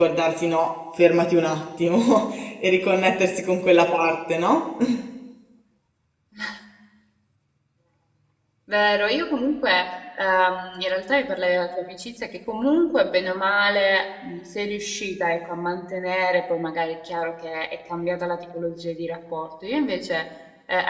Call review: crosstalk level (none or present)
none